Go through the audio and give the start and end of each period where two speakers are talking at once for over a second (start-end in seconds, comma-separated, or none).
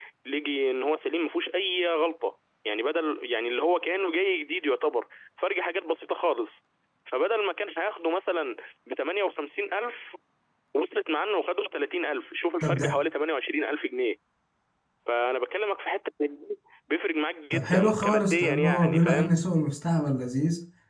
17.5-19.3